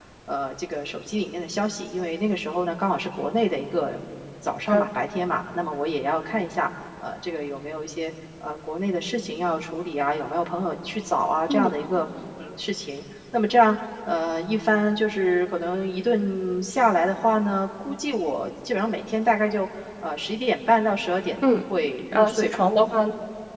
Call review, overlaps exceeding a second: none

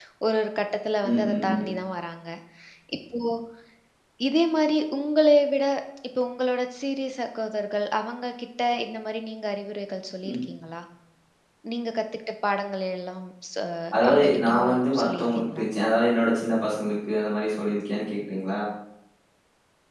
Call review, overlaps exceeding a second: present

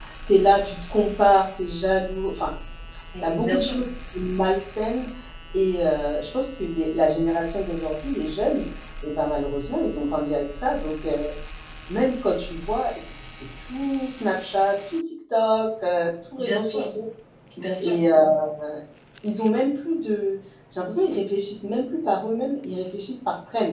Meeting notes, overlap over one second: none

